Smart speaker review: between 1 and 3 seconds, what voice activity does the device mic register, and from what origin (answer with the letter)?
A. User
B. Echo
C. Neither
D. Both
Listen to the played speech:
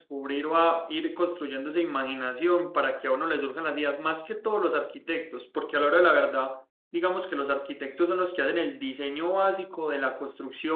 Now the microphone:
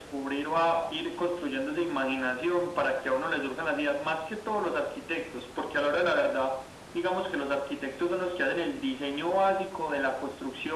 B